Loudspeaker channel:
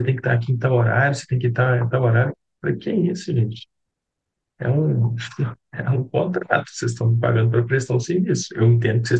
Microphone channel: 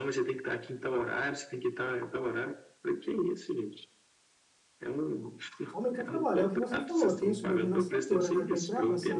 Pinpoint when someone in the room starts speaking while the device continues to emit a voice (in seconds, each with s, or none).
5.7 s